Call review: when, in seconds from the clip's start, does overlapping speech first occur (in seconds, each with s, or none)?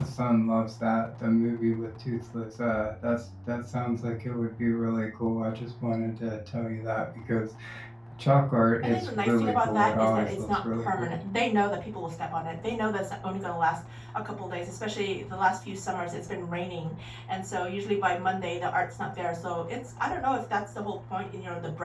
8.8 s